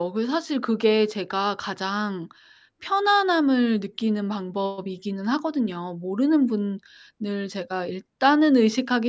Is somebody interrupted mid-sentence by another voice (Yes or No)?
No